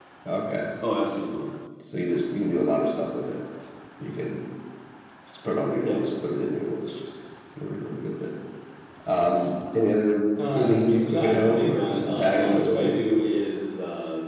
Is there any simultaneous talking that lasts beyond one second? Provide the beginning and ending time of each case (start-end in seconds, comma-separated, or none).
10.5-13.0